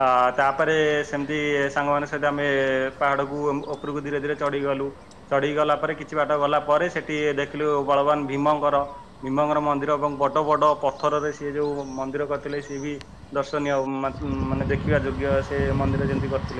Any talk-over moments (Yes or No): No